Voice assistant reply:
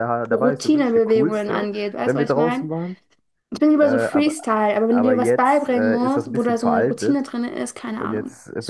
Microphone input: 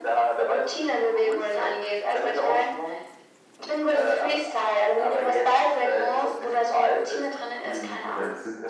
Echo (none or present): present